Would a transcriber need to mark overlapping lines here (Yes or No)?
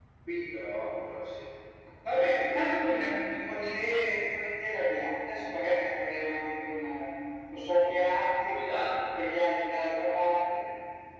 No